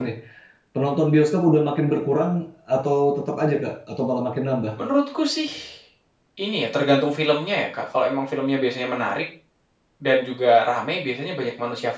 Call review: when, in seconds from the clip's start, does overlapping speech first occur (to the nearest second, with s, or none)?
none